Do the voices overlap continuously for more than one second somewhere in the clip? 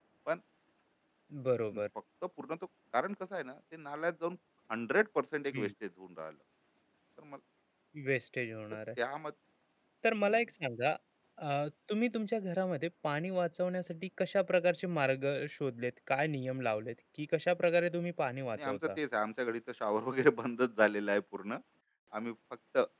No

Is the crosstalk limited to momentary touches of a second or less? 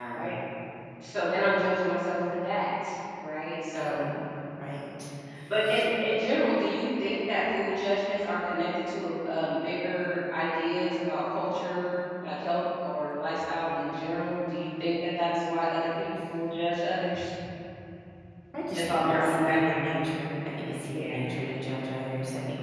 No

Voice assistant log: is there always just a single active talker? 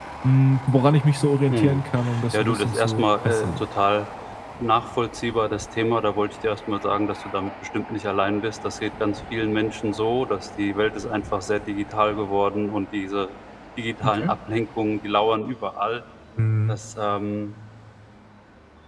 No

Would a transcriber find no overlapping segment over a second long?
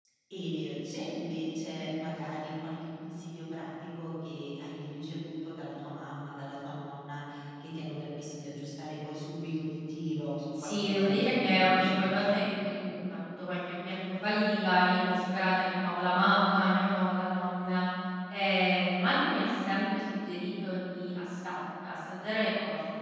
No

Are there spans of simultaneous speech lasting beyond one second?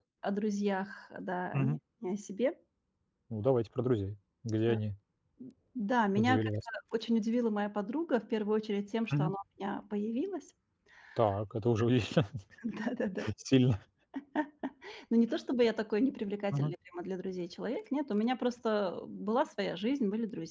No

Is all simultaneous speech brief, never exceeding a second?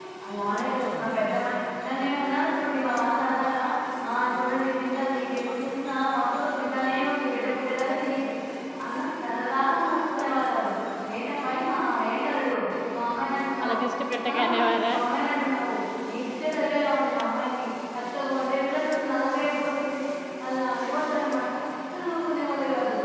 Yes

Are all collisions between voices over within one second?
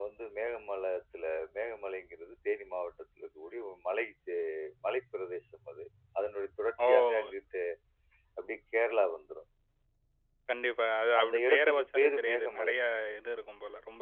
No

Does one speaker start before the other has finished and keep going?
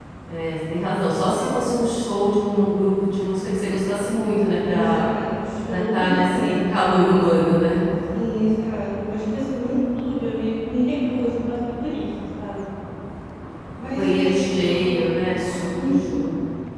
Yes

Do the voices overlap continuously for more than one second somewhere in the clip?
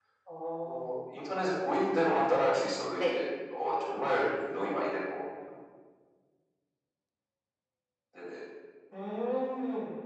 No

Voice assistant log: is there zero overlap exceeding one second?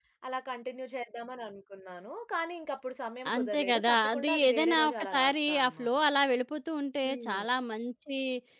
No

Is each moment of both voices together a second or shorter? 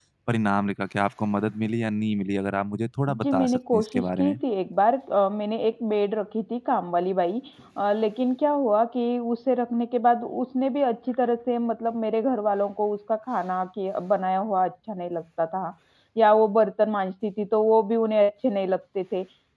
No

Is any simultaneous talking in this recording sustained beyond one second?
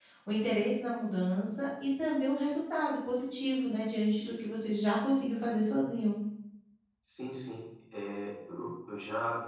No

